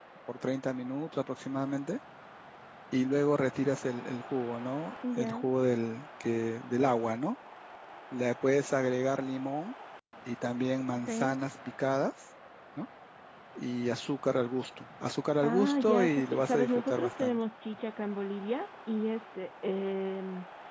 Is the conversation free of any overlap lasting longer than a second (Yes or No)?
No